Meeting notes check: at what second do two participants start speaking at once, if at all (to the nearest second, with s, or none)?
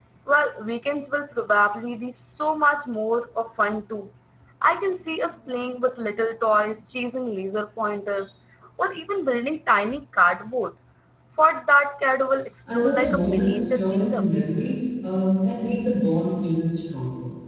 13 s